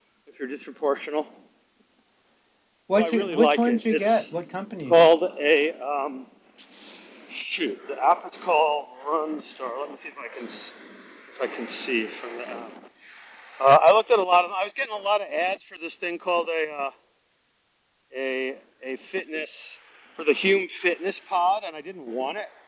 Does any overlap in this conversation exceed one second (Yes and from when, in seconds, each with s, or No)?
Yes, from 2.9 s